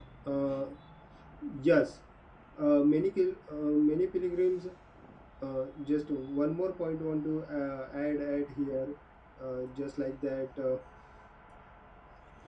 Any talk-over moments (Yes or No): No